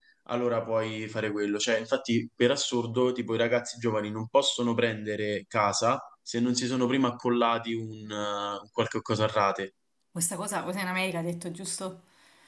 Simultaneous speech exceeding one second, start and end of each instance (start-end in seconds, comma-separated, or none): none